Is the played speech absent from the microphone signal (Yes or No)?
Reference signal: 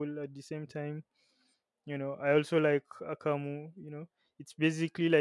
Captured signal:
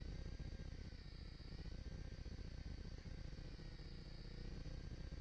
Yes